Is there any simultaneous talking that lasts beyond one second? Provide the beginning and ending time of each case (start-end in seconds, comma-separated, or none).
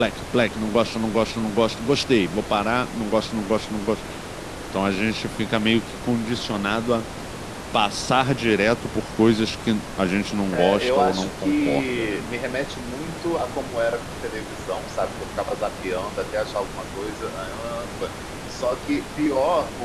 10.5-12.2